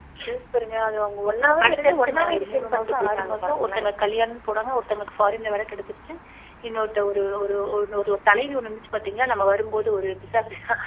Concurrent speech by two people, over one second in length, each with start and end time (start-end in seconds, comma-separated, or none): 1.6-3.9